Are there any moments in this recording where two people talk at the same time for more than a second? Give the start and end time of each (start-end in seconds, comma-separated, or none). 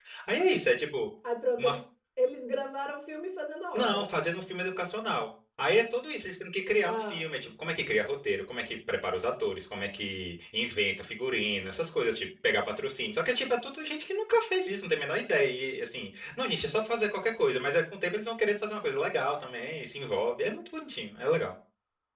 none